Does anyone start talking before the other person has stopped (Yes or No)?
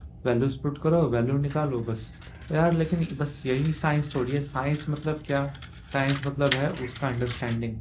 No